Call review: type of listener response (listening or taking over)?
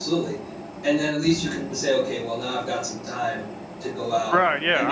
taking over